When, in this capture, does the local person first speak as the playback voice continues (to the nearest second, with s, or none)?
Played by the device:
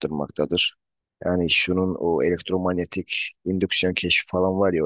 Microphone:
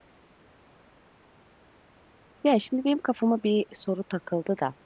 2 s